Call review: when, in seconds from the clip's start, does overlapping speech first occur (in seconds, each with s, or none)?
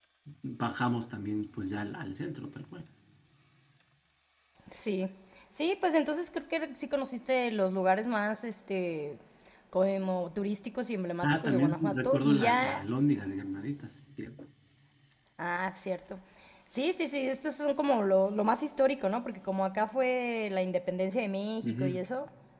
11.2 s